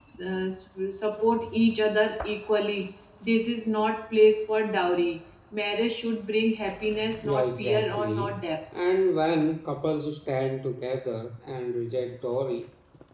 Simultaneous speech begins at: 7.0 s

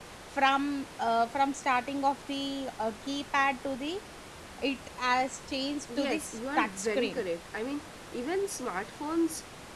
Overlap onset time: 5.9 s

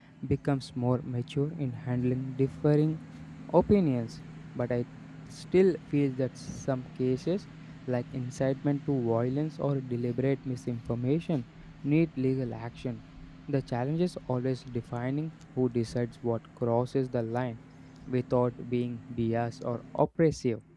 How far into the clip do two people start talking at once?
none

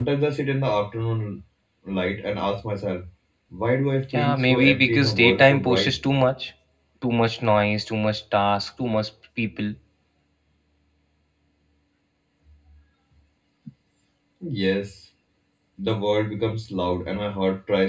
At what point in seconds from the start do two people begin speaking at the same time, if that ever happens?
4.1 s

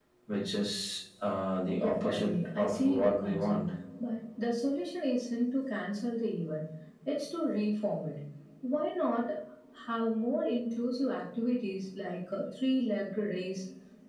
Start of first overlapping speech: 1.8 s

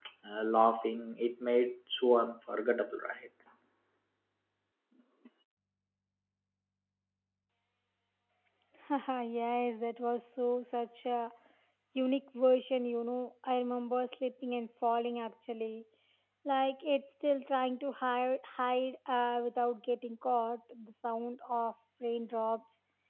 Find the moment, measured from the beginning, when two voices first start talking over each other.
none

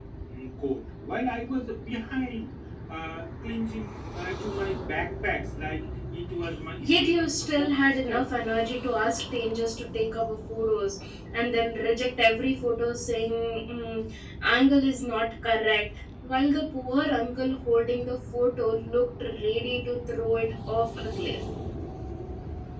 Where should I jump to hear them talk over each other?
6.8 s

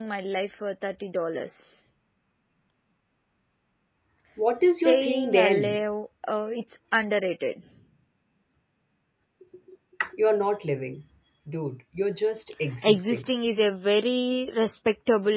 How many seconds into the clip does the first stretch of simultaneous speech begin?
4.6 s

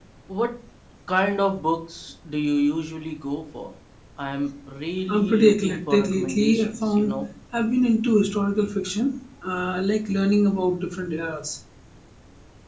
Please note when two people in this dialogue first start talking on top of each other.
5.1 s

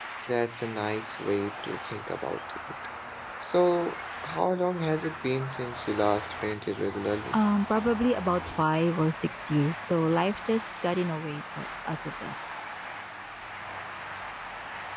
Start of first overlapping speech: none

